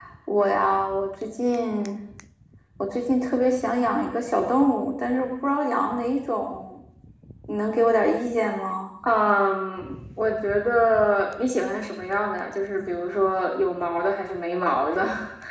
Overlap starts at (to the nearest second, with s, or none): none